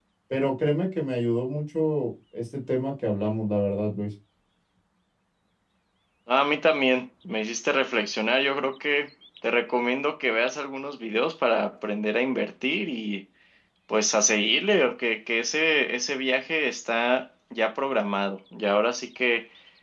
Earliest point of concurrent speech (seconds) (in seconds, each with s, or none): none